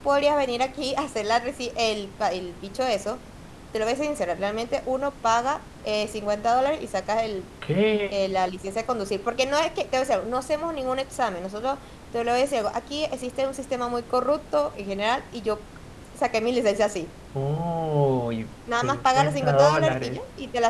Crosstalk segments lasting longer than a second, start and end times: 18.8-20.2

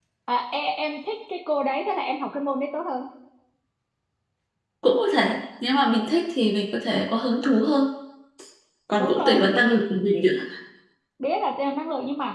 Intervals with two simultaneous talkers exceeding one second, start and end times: none

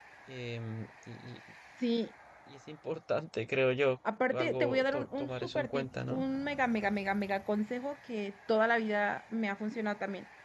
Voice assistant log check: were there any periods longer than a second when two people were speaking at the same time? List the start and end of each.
4.3-6.2

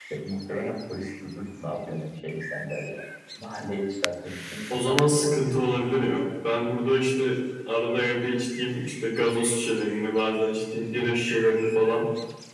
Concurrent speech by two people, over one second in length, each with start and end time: 4.7-5.9

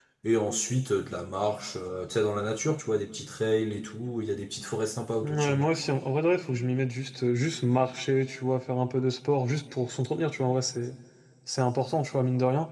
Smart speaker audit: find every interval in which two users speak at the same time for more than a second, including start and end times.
none

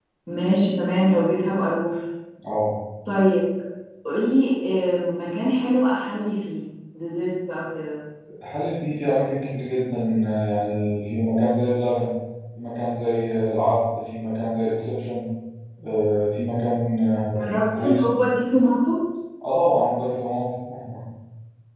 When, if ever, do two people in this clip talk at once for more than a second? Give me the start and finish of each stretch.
none

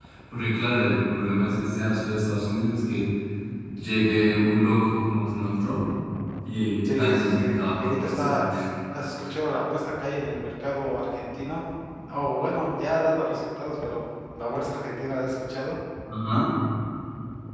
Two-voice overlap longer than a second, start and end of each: 6.8-8.5

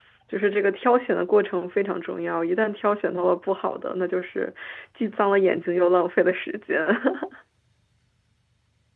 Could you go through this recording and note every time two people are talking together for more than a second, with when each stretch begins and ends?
none

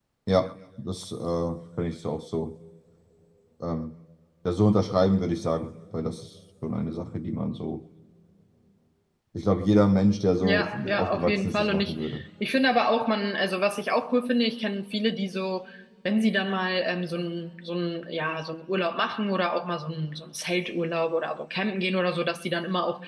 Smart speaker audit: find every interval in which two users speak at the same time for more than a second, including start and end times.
10.4-11.9

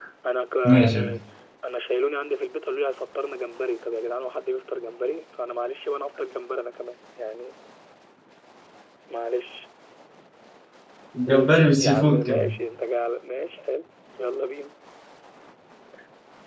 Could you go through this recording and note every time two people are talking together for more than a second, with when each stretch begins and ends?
11.3-12.5

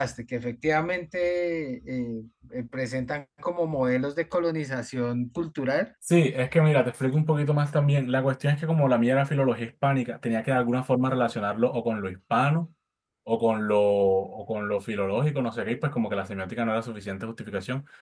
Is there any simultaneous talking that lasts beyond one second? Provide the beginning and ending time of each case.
none

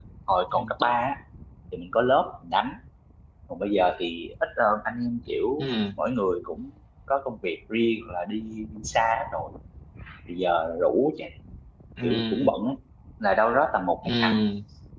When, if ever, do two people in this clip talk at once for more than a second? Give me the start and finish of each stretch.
none

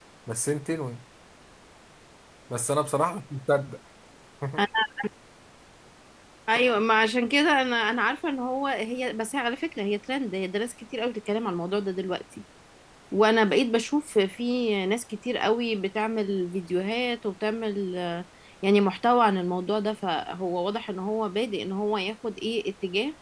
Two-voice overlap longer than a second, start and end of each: none

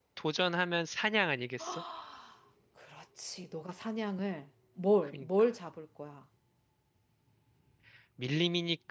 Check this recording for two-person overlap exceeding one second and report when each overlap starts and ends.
none

